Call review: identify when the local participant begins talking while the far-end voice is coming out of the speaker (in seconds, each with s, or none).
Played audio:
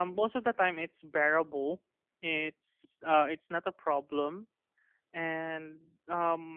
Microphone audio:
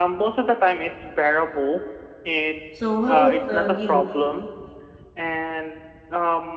2.7 s